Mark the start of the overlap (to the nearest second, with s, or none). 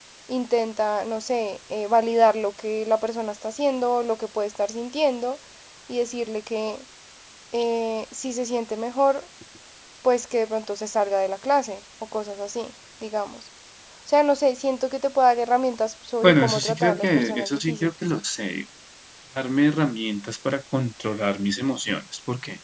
16 s